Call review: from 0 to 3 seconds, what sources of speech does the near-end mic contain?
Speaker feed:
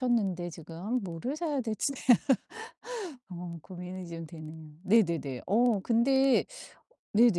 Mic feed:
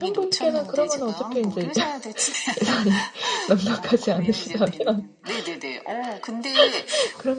both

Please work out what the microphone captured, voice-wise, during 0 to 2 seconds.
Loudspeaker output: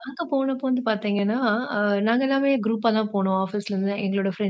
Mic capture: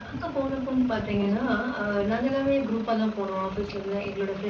echo only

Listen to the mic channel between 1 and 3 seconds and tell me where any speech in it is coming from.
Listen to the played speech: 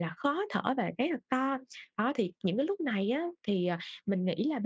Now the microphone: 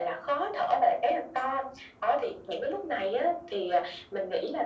echo only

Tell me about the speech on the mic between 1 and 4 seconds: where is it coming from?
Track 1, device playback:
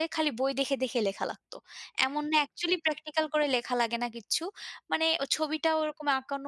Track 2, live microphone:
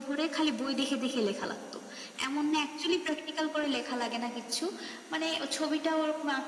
echo only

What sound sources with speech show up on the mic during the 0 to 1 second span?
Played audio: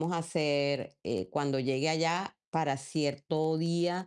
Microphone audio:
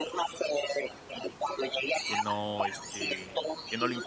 echo only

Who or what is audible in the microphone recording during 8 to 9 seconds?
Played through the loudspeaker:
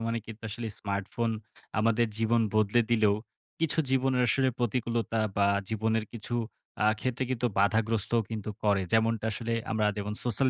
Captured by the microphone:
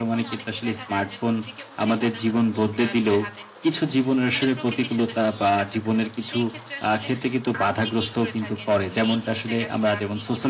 both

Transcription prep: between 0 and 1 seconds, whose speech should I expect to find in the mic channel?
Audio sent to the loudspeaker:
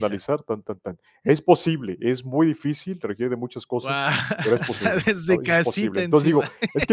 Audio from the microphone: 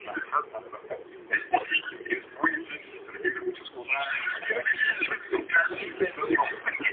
echo only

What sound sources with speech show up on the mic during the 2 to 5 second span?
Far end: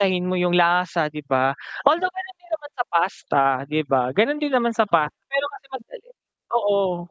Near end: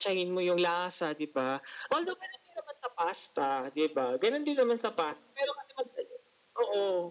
echo only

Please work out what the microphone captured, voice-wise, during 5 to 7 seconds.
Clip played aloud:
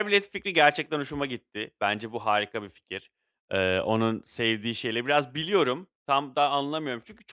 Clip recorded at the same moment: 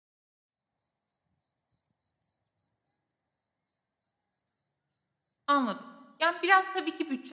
user only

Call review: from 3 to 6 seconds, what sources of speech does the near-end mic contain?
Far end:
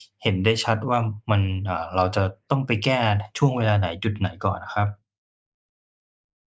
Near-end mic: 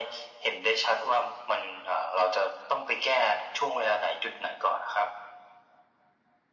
echo only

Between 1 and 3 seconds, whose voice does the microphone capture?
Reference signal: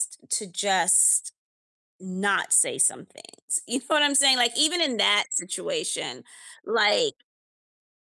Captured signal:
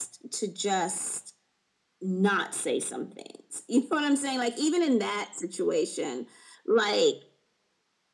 echo only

